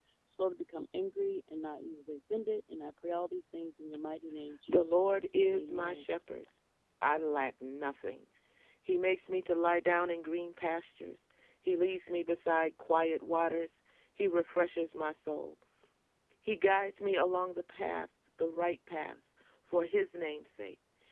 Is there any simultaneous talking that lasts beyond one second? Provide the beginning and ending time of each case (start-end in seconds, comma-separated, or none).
4.7-6.0